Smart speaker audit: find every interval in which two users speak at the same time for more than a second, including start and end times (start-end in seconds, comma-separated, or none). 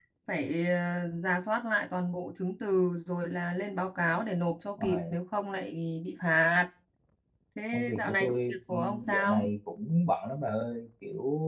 7.7-9.4